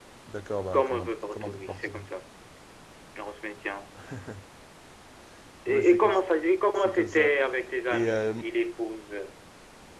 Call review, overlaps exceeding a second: present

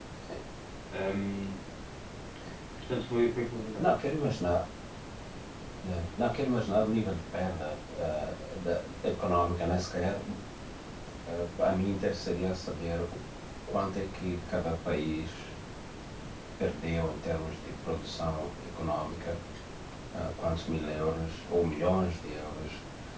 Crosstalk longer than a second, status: none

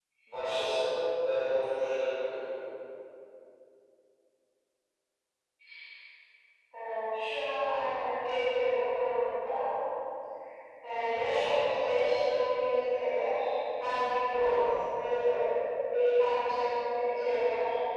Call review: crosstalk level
none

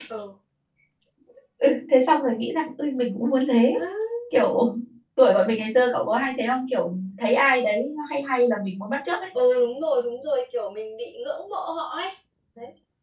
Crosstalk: none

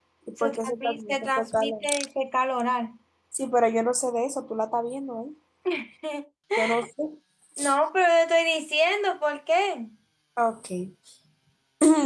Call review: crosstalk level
present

